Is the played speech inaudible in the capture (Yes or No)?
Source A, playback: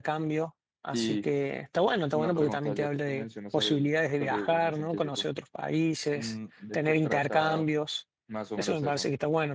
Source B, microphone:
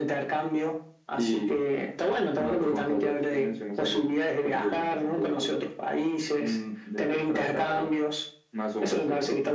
No